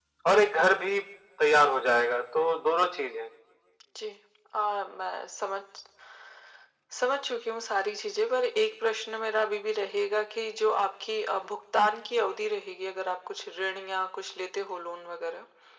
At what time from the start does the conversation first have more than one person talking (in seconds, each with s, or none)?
none